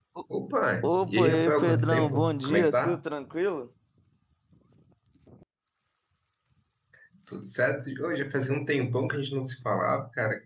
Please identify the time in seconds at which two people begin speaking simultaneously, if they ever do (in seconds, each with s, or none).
1.0 s